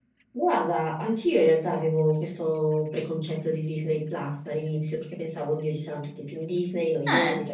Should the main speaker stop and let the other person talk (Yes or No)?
No